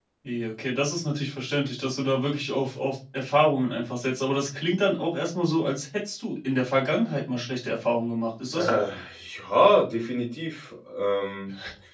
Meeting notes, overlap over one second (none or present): none